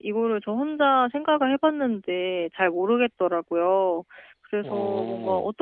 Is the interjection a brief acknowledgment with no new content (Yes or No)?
Yes